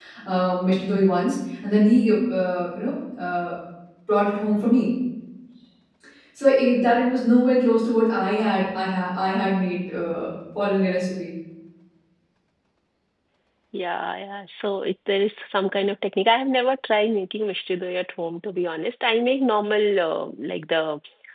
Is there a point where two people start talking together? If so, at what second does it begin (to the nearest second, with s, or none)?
none